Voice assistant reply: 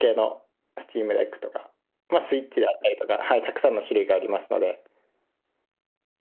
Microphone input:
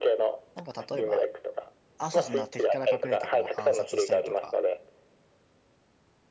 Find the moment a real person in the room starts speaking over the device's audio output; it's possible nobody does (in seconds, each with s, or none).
0.5 s